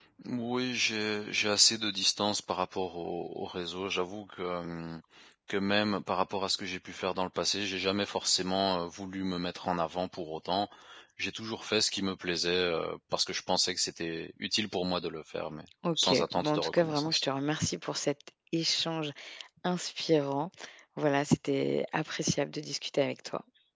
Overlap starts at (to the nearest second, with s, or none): 16 s